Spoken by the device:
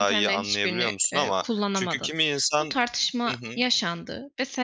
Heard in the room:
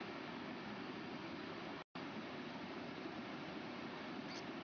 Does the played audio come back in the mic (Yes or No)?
No